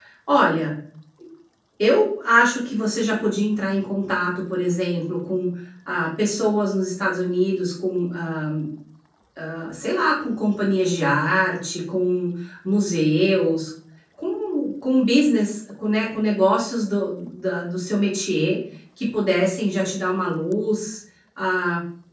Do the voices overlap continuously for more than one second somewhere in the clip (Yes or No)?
No